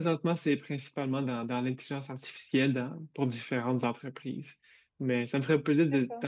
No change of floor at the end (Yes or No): Yes